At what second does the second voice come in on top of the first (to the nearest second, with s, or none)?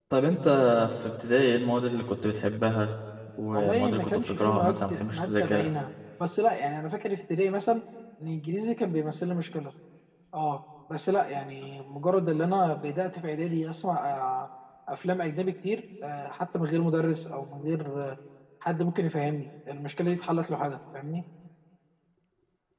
4 s